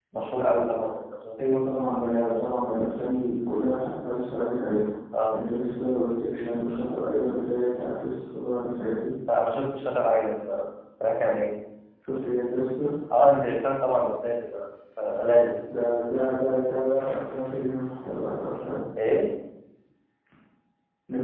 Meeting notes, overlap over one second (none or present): none